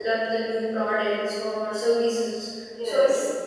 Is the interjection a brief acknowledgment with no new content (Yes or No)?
Yes